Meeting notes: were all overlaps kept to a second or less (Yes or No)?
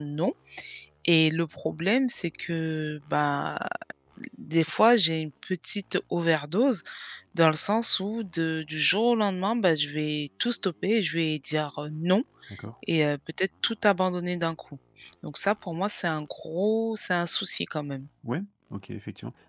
Yes